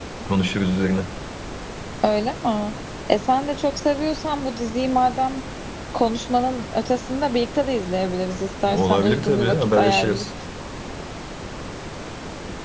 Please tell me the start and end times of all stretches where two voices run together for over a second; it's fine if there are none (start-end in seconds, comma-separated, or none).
8.7-10.2